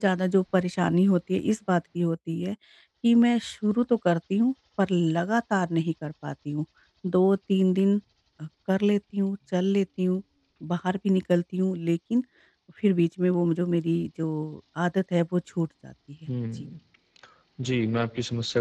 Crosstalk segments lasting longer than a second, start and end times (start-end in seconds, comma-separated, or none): none